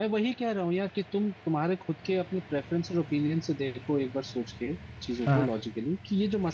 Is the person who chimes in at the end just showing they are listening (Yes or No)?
Yes